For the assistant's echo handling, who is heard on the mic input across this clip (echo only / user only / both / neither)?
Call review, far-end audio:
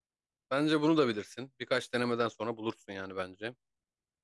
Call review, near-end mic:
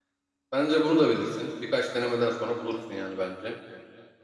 echo only